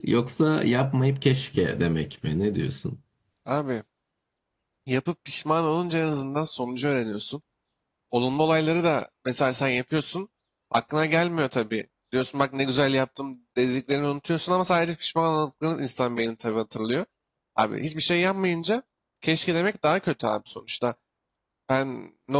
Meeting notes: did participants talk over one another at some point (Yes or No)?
No